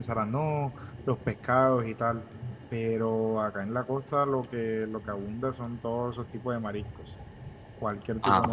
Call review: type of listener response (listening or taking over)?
listening